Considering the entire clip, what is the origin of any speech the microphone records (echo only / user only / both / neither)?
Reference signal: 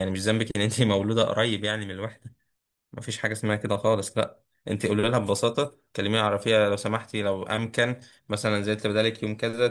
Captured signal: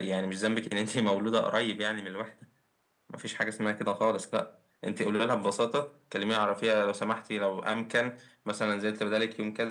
echo only